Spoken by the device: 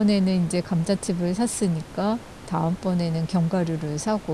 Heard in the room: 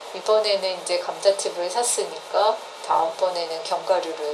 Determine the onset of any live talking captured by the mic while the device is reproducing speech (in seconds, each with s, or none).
none